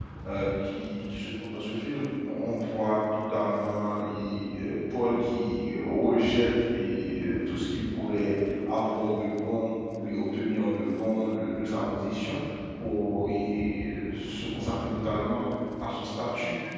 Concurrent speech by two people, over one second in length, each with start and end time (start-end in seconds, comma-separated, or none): none